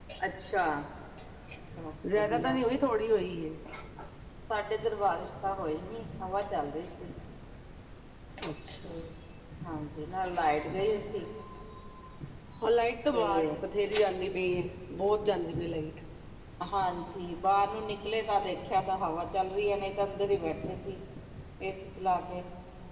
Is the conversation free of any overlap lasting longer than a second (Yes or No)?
Yes